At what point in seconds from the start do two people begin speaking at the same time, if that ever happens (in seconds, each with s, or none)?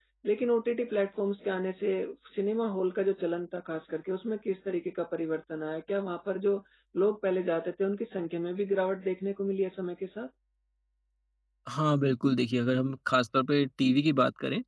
none